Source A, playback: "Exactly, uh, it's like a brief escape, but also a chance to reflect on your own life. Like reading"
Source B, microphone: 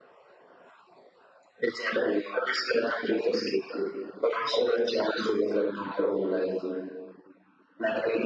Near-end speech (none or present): none